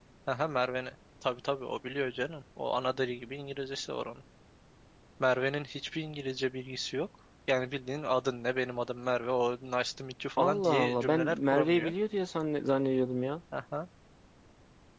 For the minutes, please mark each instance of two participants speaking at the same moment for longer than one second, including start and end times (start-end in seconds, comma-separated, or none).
10.4-11.9